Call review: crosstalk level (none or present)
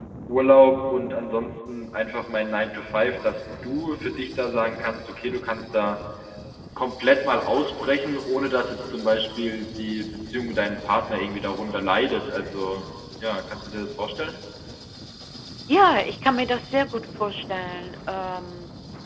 none